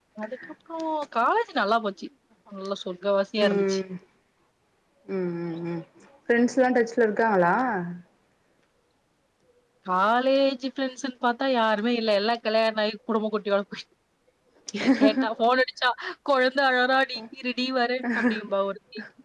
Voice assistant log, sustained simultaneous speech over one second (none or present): none